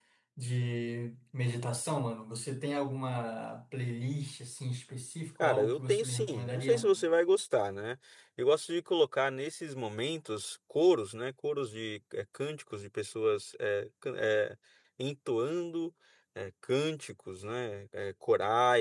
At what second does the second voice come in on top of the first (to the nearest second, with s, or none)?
5 s